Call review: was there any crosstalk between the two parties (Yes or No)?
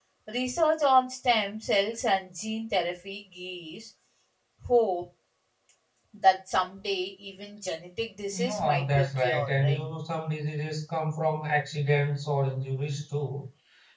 Yes